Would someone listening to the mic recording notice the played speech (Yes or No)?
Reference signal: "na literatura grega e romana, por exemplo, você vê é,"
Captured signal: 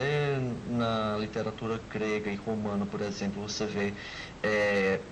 Yes